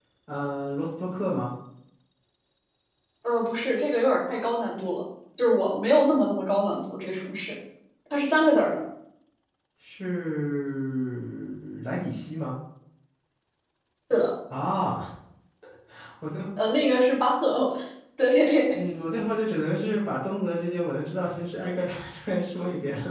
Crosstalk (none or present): none